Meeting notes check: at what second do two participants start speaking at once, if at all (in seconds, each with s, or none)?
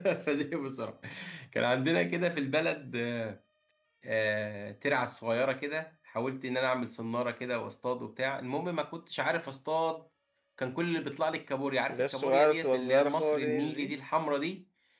11.9 s